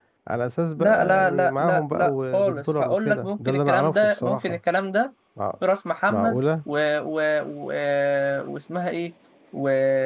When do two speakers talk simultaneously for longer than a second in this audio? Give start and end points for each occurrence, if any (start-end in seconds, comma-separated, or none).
0.8-4.6